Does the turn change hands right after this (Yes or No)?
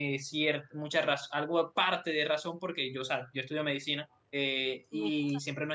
No